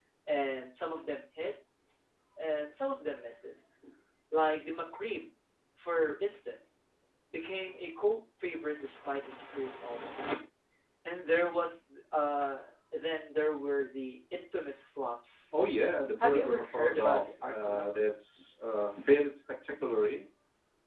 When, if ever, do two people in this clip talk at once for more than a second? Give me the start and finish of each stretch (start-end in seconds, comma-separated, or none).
16.2-18.1